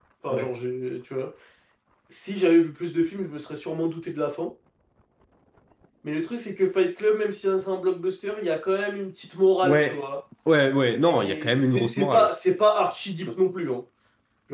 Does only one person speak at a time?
No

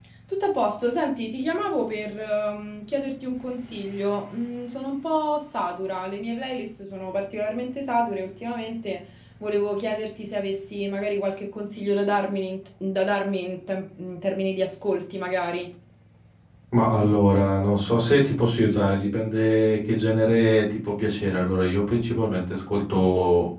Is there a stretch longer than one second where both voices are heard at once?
No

